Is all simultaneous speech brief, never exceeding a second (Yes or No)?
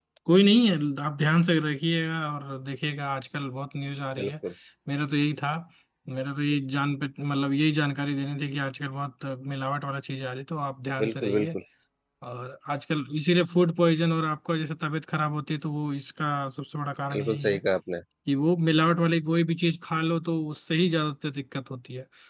Yes